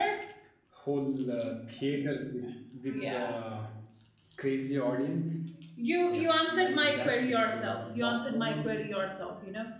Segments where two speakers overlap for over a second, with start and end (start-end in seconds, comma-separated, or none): 6.1-8.7